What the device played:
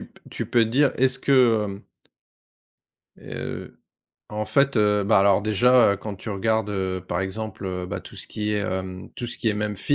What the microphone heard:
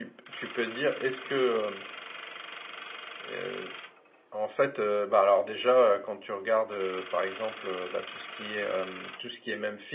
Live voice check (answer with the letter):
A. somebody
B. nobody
B